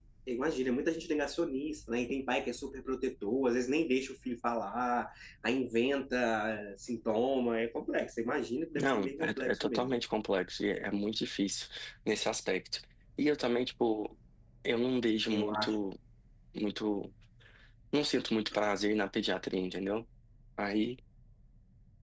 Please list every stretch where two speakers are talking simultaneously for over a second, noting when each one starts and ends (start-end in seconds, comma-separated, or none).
8.7-10.0